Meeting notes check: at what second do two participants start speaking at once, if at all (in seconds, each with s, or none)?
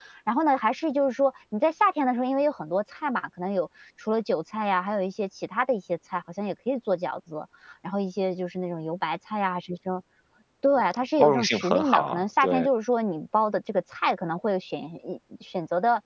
11.2 s